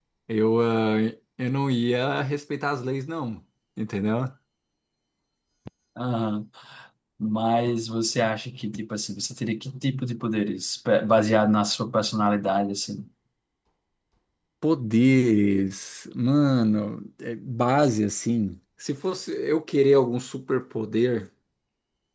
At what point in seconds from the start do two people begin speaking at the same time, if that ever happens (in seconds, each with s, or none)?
none